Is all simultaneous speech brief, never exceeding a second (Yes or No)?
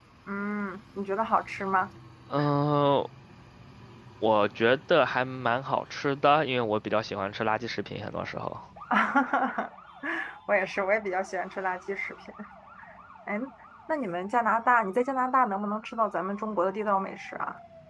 Yes